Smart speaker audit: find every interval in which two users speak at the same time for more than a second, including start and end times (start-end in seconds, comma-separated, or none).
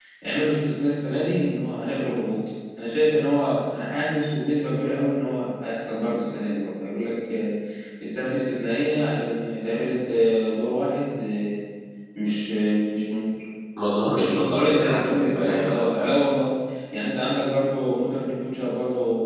14.1-16.1